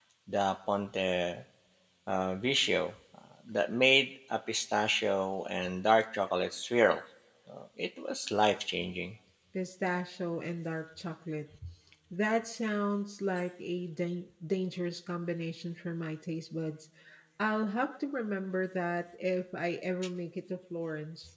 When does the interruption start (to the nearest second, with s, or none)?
none